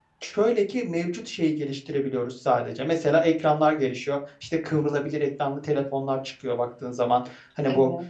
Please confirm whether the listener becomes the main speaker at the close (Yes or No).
No